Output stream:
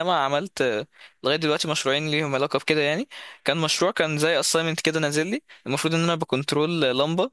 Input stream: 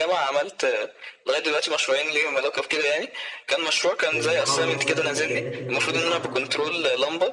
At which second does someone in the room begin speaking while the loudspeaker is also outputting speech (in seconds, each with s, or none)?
4.1 s